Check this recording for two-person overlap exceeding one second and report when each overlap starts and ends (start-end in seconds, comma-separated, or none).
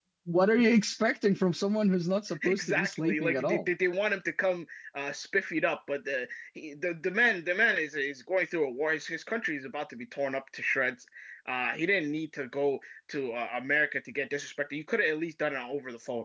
2.4-3.7